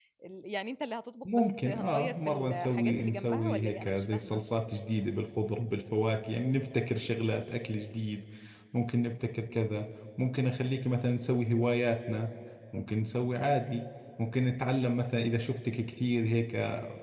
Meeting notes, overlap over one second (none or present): present